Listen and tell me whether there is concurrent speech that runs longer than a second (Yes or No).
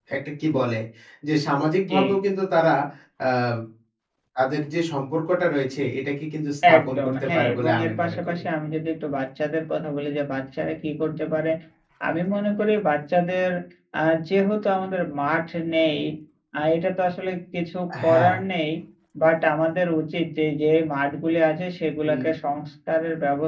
Yes